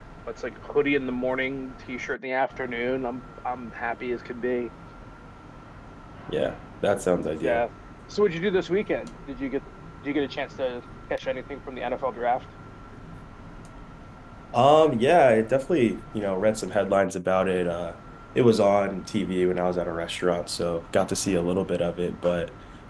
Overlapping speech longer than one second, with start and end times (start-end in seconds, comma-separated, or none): none